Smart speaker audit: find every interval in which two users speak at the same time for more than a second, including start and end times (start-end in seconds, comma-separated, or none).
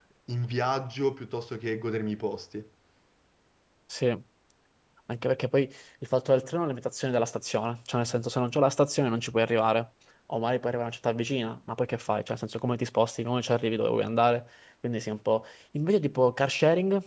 none